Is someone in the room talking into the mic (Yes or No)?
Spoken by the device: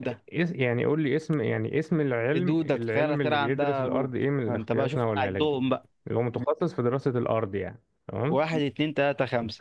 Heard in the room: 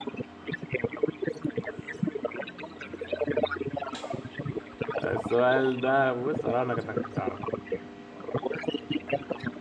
Yes